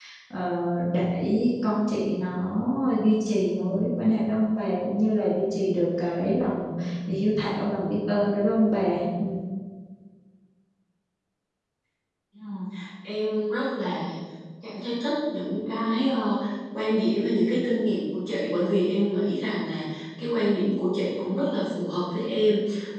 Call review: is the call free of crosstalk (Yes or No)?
Yes